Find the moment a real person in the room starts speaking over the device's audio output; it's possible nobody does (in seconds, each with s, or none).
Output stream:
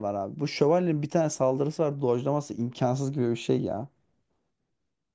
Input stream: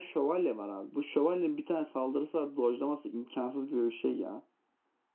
none